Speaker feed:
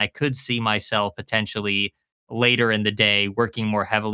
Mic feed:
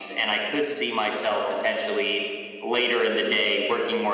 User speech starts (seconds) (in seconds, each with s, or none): none